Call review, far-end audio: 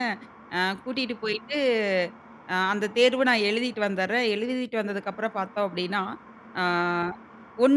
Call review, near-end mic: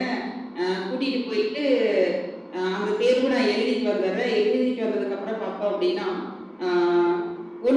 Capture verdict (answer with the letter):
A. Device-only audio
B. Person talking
A